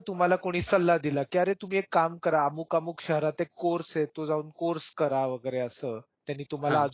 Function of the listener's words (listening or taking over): listening